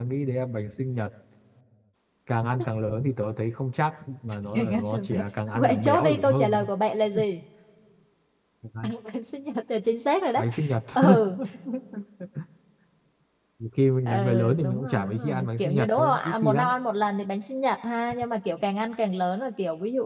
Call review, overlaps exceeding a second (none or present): present